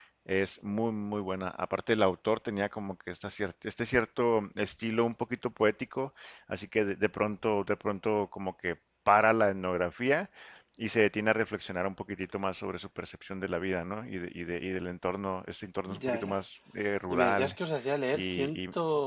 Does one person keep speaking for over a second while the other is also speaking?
No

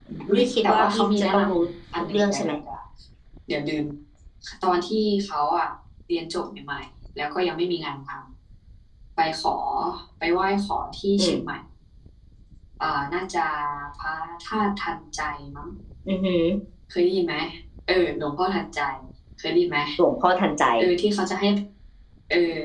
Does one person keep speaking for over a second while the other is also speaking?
Yes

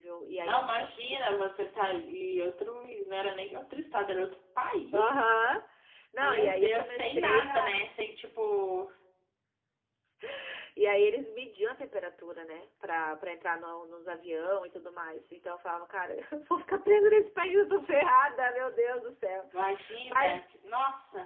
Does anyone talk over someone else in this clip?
Yes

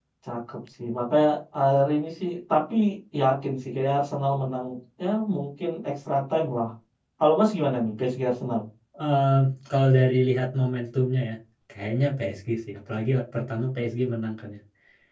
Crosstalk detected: No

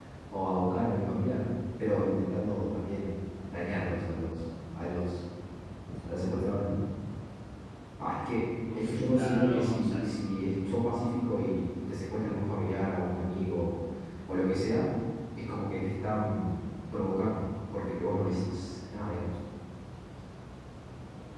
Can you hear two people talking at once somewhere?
Yes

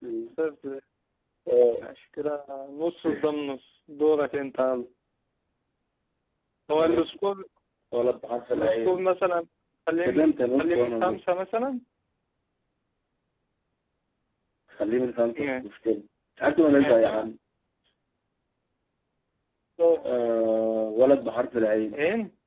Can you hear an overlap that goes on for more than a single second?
Yes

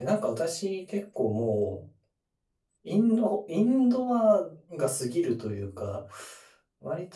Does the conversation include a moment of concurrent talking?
No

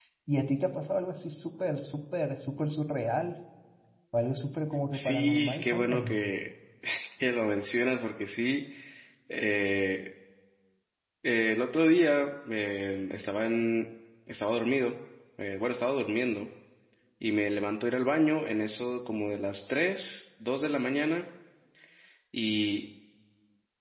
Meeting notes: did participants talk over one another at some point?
Yes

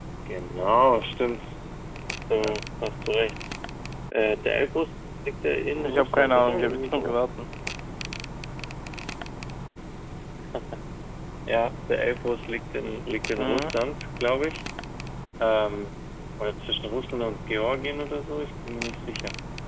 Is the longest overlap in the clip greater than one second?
Yes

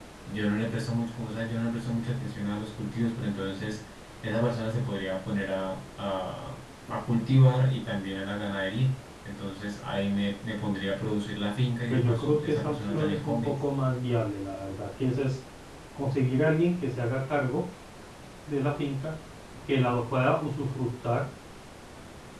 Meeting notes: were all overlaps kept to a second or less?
No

